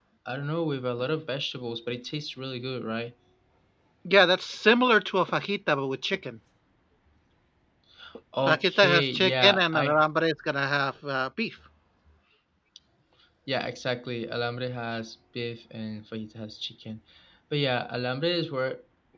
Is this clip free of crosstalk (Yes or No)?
No